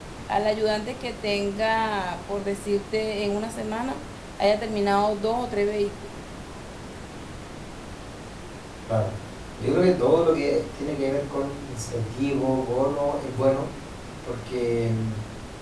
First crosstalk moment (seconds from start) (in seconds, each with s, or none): none